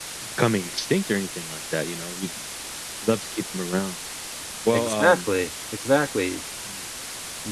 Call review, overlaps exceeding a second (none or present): none